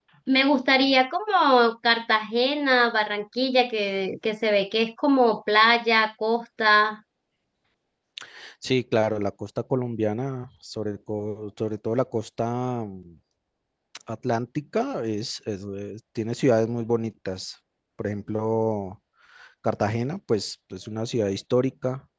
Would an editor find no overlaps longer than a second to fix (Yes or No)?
Yes